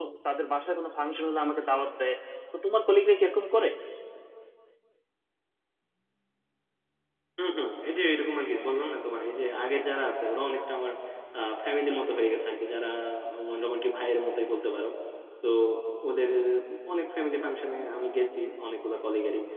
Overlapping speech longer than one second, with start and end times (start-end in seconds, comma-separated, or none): none